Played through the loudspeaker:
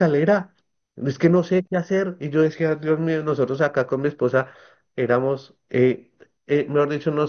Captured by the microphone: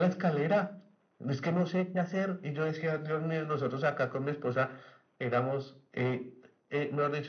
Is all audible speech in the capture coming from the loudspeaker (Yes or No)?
Yes